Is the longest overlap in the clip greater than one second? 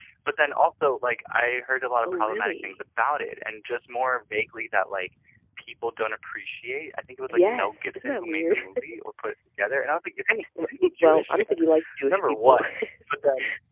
Yes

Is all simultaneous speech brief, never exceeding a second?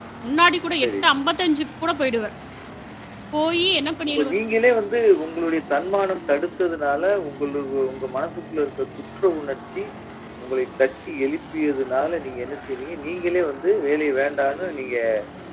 Yes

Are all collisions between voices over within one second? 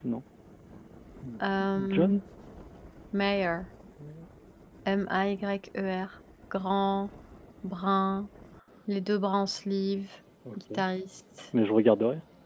Yes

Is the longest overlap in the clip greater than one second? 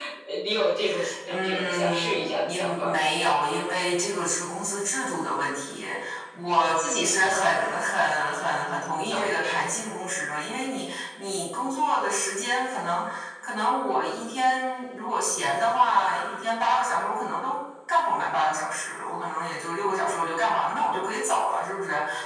Yes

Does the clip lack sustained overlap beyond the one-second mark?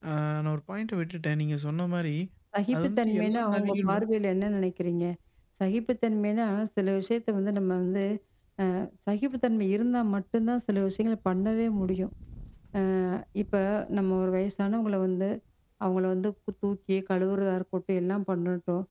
No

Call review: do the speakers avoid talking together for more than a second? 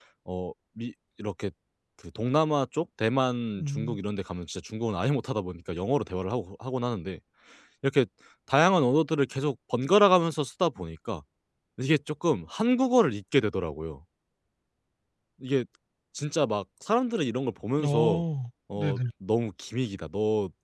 Yes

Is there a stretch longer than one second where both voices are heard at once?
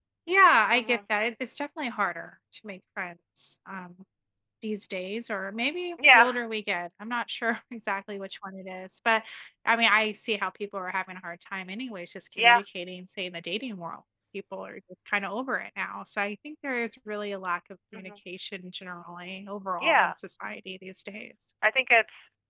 No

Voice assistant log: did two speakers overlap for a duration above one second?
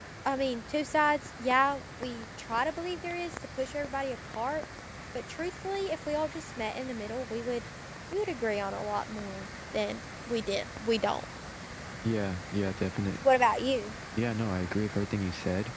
No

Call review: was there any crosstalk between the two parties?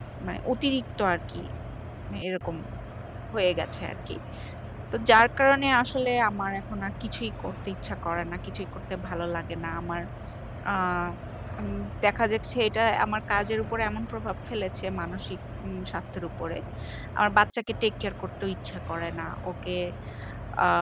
No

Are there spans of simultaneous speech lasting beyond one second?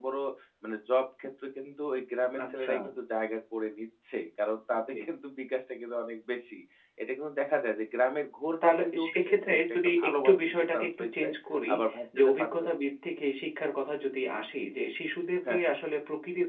Yes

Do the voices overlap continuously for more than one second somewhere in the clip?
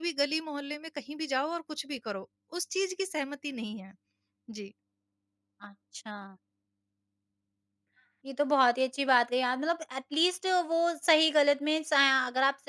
No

